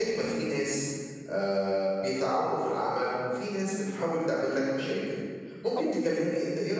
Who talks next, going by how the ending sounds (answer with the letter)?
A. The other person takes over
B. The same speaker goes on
B